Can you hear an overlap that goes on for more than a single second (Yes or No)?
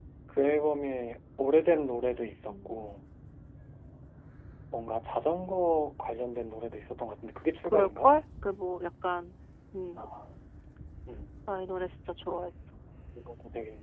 No